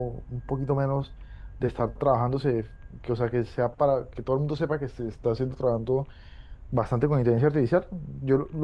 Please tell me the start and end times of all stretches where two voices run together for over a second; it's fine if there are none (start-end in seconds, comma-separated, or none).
none